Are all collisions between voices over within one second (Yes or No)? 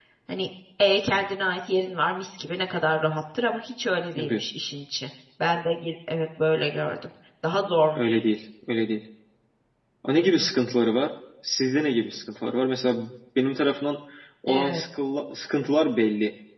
Yes